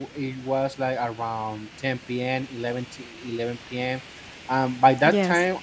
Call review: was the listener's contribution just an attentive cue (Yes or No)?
Yes